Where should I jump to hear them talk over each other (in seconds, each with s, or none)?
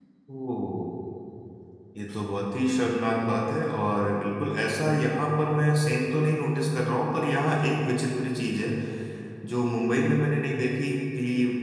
none